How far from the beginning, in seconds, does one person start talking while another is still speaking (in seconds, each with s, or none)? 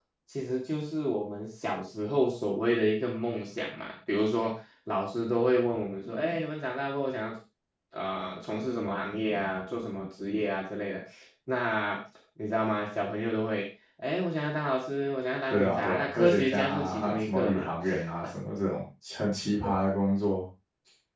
15.5 s